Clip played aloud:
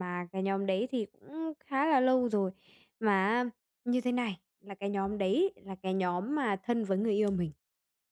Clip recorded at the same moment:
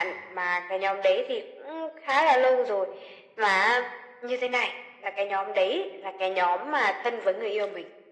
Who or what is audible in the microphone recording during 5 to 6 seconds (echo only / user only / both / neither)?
echo only